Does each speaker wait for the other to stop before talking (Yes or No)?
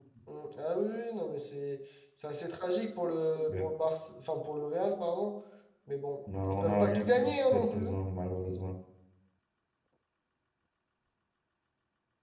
No